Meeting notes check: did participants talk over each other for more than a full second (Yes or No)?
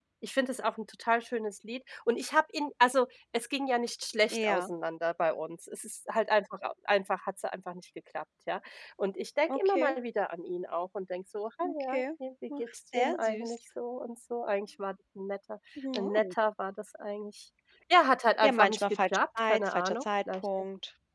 Yes